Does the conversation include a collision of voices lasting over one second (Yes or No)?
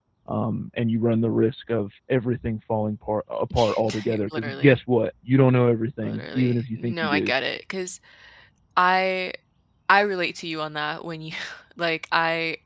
Yes